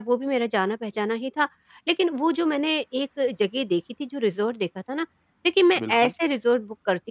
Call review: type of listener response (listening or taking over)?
listening